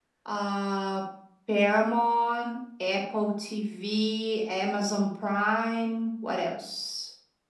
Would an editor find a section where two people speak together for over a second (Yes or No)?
No